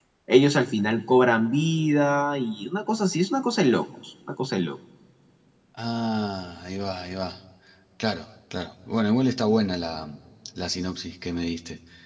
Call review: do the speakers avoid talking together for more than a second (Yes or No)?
Yes